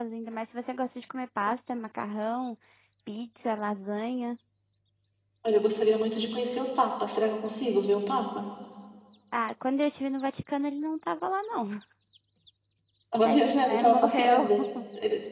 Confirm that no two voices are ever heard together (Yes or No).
No